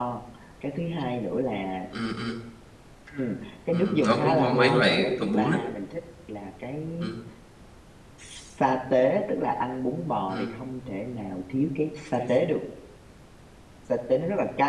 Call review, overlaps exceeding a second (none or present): present